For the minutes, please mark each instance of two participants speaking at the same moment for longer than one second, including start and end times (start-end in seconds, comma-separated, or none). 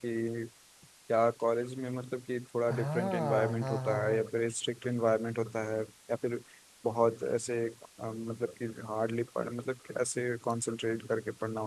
2.7-4.2